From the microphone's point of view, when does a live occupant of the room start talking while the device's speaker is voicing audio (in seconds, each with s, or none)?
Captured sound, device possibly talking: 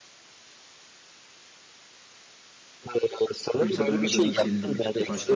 3.6 s